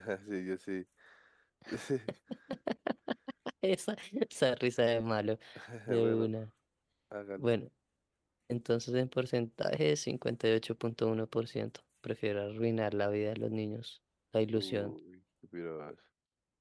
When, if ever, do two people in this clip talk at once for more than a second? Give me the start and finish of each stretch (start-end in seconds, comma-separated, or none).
none